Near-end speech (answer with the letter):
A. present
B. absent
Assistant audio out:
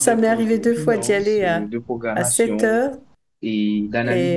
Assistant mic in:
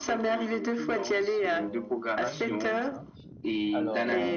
A